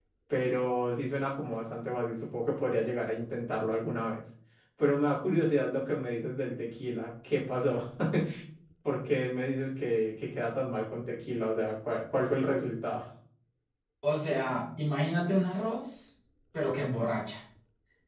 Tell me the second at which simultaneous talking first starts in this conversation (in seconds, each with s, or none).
none